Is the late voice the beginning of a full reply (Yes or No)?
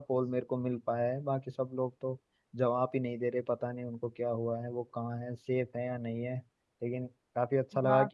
Yes